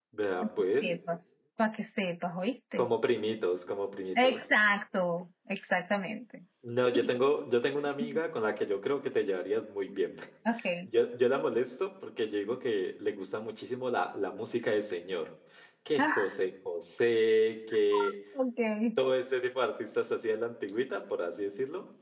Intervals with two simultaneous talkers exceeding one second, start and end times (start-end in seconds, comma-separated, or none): none